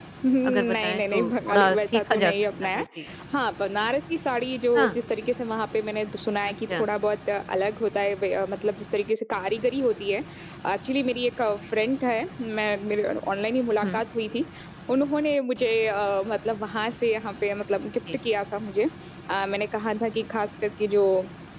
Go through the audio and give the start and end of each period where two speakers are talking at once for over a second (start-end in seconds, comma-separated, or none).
0.5-2.8